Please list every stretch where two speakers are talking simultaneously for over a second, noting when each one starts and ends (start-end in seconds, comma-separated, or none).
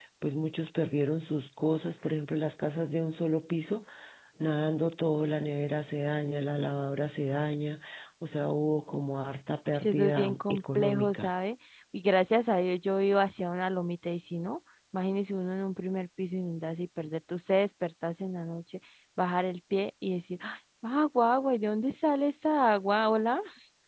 9.8-11.3